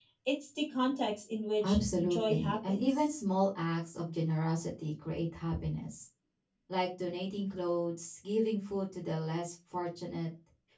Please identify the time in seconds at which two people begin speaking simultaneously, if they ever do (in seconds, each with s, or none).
1.6 s